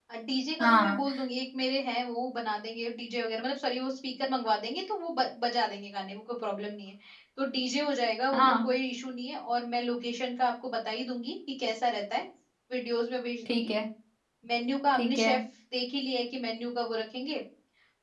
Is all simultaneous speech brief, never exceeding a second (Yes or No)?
Yes